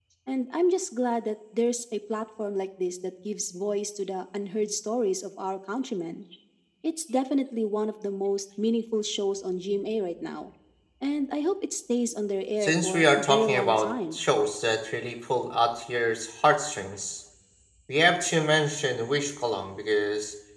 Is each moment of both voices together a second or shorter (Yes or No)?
No